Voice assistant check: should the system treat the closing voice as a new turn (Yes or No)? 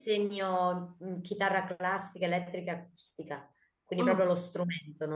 No